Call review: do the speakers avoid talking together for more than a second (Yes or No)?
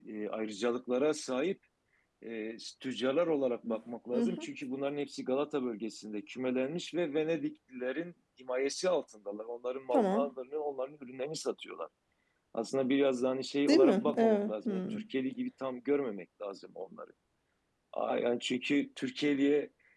No